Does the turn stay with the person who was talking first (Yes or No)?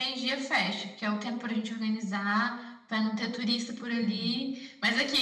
Yes